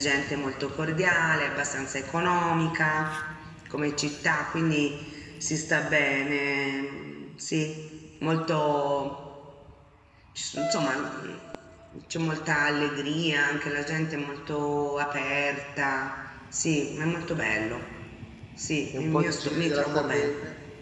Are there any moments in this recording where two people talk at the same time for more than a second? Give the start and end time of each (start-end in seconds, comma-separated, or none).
18.9-20.3